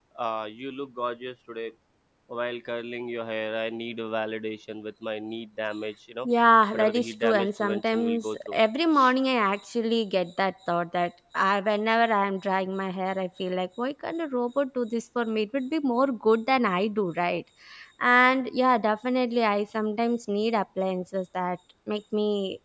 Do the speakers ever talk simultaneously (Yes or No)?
Yes